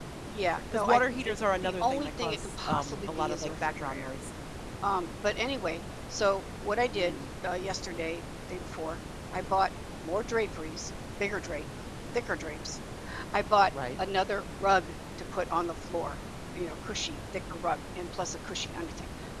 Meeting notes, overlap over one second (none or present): present